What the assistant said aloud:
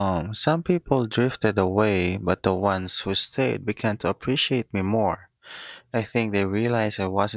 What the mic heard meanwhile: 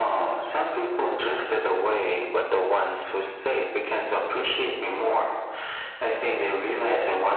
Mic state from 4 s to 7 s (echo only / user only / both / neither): echo only